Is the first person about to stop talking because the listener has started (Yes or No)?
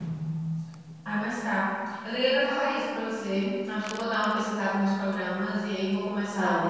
Yes